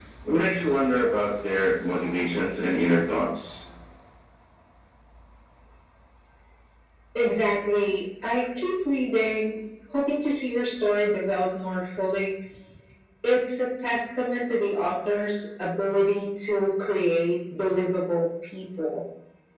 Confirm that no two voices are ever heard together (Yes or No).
Yes